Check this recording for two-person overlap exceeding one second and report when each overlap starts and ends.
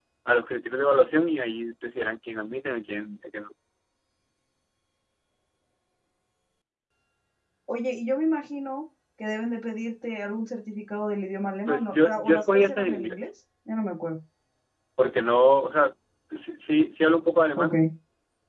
11.7-13.3

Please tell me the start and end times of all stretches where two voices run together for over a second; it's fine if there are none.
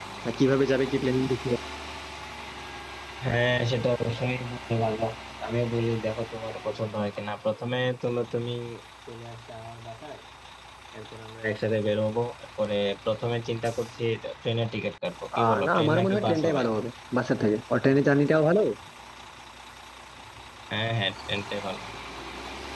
15.4-16.6

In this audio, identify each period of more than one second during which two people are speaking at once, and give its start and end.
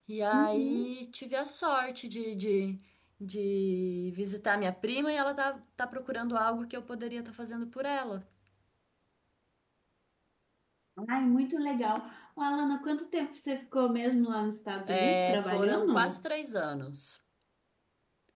14.9-16.2

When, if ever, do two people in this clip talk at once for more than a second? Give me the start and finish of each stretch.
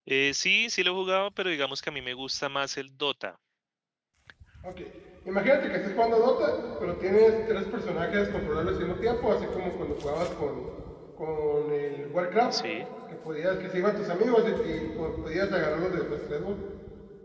none

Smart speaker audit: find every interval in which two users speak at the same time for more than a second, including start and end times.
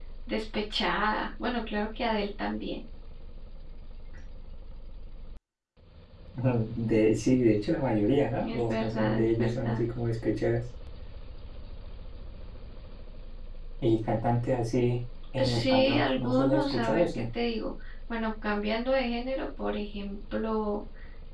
8.4-9.8, 15.4-17.2

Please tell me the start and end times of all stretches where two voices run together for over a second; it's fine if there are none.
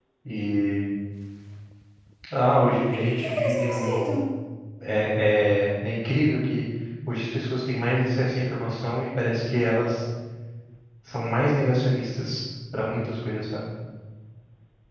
2.7-4.2

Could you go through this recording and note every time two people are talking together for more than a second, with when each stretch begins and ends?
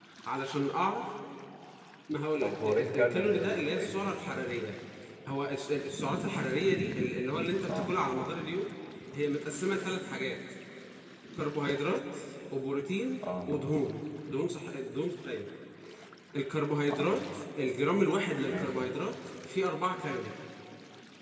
2.4-4.6

